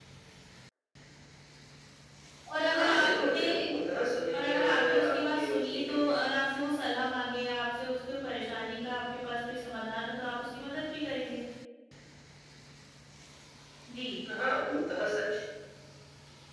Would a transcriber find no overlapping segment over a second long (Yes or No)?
No